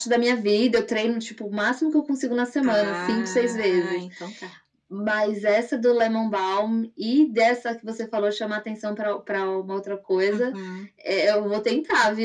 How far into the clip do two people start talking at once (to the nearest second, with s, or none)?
3 s